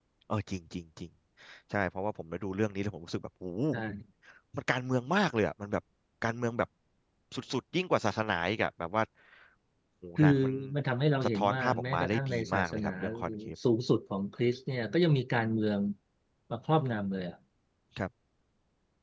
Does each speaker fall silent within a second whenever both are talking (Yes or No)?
No